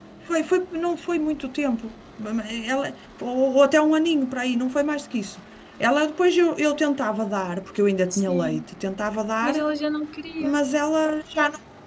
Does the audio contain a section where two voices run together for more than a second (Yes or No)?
No